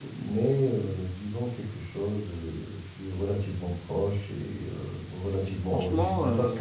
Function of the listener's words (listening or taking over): listening